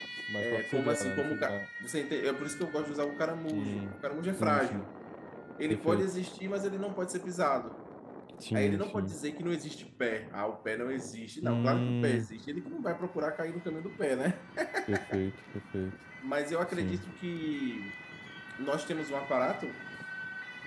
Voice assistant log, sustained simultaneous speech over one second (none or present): present